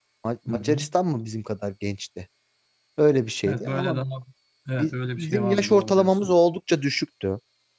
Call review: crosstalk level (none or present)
present